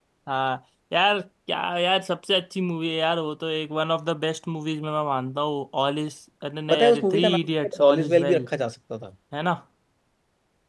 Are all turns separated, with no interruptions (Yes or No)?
No